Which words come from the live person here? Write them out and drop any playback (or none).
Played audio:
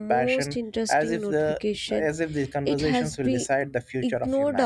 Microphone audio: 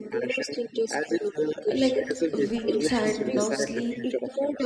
like wins and now sleep